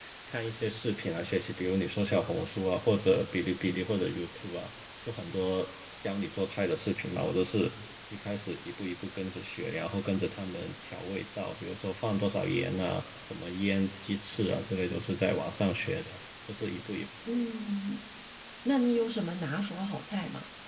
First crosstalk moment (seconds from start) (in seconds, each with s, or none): none